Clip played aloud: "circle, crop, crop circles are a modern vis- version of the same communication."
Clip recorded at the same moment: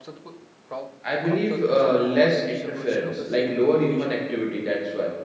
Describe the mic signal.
both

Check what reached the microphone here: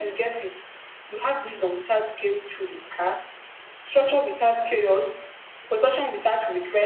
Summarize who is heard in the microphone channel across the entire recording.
echo only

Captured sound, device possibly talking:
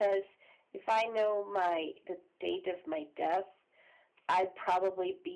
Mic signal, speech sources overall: echo only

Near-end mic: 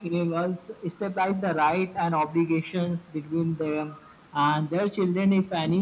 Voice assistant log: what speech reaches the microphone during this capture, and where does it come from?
echo only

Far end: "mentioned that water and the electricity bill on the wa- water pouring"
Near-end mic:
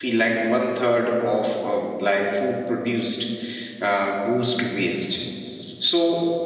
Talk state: user only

